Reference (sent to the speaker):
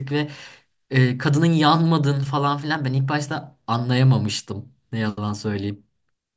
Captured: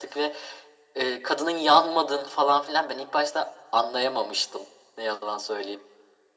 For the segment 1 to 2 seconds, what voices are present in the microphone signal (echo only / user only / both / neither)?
echo only